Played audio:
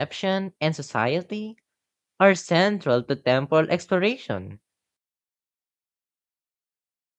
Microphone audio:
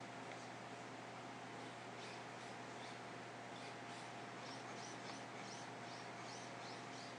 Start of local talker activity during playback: none

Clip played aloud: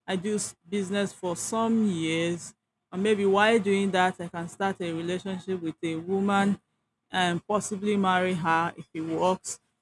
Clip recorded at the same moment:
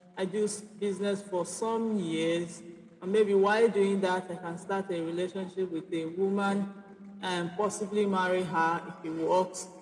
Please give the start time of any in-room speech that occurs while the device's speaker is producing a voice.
none

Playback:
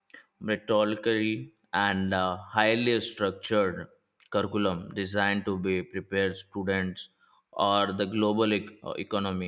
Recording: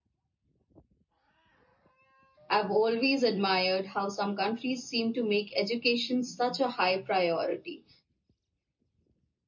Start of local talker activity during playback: 2.5 s

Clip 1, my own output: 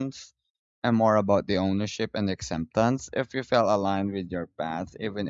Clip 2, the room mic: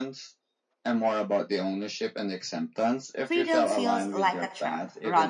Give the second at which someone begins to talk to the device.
3.2 s

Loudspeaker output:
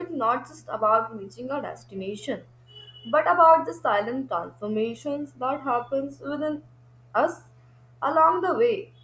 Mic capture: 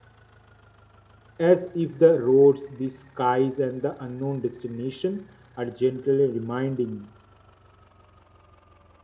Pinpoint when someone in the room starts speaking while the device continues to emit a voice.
1.4 s

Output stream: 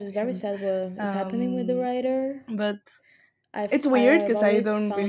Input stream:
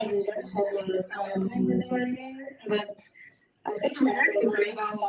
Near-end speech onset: none

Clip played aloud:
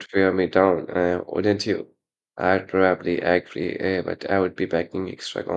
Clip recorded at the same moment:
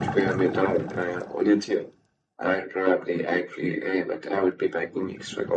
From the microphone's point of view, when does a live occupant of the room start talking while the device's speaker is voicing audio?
none

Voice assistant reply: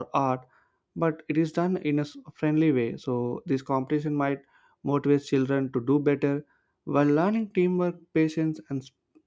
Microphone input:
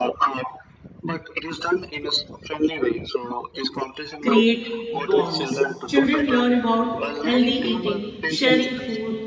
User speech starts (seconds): 4.2 s

